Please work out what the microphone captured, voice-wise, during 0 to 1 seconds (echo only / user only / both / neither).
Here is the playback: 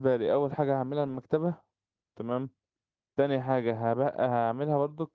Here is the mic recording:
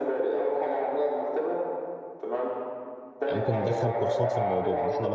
echo only